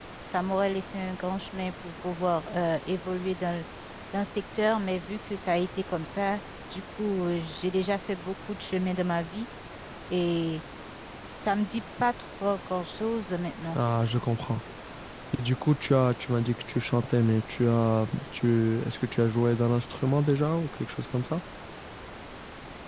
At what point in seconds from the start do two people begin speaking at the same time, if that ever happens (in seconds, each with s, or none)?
none